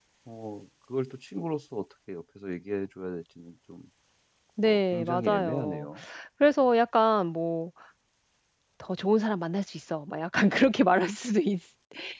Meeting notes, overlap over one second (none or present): present